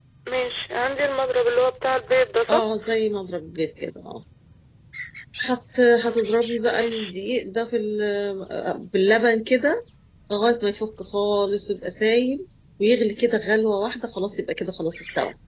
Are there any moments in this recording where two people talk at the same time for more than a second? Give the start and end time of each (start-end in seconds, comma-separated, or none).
none